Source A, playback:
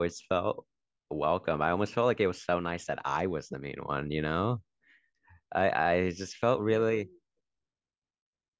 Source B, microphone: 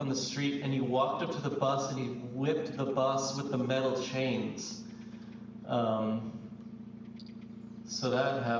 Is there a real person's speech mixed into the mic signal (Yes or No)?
Yes